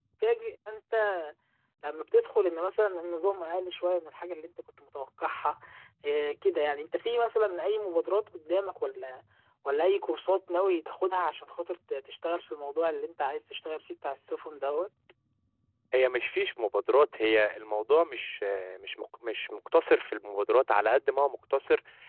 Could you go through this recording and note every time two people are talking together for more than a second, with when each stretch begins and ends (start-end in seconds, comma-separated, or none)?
none